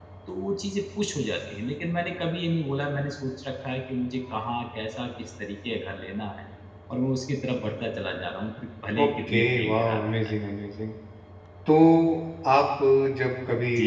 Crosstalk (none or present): present